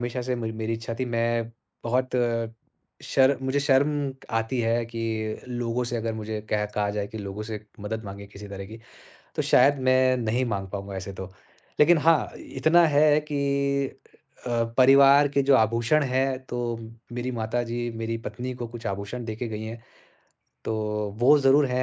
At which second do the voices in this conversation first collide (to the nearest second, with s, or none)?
none